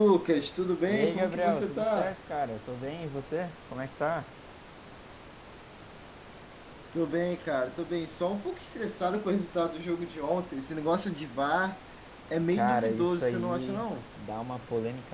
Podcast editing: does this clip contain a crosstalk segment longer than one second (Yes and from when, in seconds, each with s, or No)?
Yes, from 0.9 s